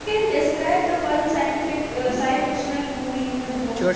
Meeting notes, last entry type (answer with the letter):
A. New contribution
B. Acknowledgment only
A